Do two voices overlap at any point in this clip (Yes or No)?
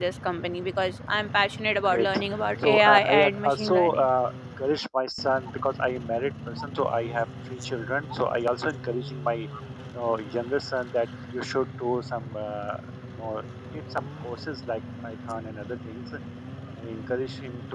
Yes